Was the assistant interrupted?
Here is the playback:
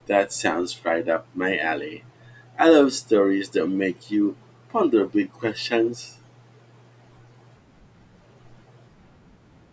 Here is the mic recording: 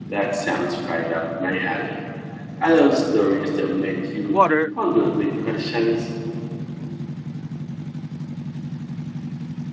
Yes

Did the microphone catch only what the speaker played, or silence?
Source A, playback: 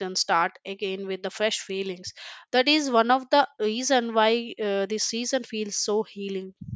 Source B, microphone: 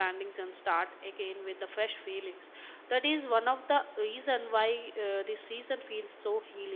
Yes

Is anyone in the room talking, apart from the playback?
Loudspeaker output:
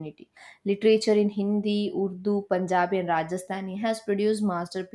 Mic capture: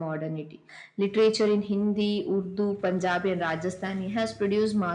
No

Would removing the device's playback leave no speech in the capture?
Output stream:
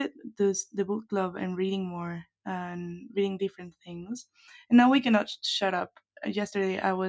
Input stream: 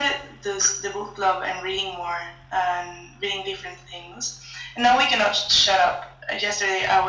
Yes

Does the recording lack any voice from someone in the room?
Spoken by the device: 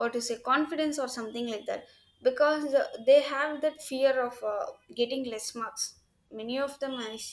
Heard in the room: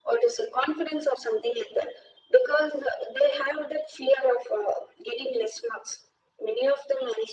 Yes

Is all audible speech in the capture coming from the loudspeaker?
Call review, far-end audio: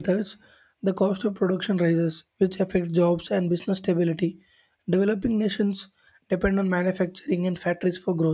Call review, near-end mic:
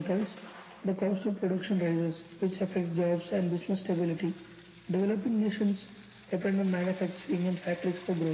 Yes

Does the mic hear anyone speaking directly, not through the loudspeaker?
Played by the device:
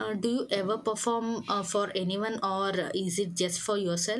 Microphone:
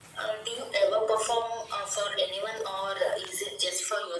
No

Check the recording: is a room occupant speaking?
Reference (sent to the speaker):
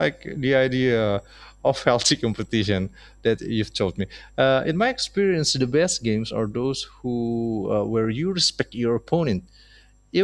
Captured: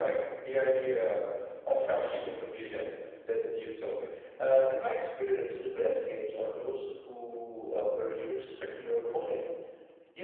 No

